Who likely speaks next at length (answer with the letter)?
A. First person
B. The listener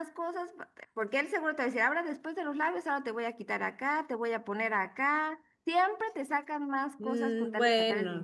B